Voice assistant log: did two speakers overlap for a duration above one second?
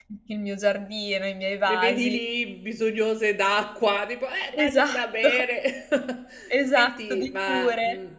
Yes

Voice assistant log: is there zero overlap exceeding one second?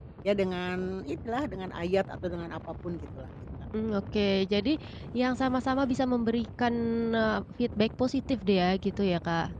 Yes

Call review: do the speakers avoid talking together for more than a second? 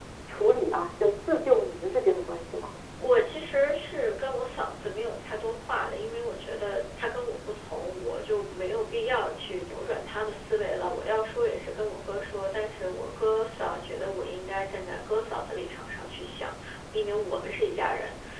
Yes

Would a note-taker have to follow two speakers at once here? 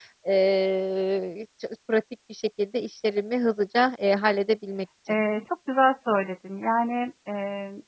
No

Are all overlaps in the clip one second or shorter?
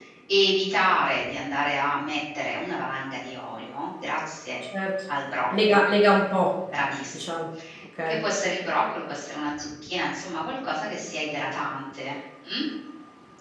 Yes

